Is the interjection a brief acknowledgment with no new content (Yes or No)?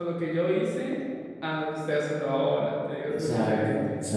No